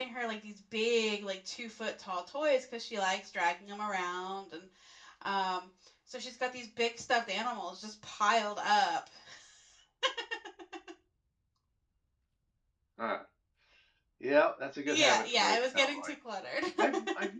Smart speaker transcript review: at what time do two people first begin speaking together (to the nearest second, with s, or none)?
15 s